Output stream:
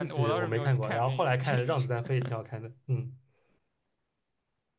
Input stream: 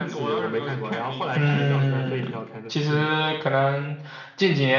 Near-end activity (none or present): present